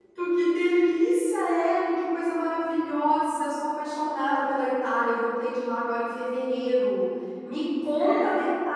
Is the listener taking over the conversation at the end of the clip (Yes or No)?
No